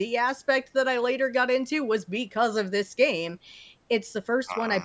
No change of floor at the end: Yes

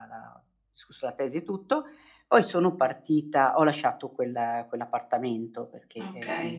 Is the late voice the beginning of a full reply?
No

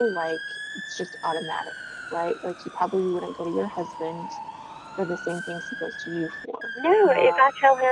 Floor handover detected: Yes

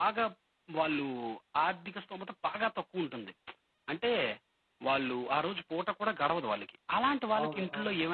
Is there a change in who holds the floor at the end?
No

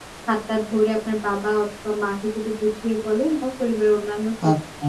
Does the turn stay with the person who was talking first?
Yes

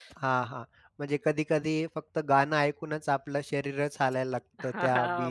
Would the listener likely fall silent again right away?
No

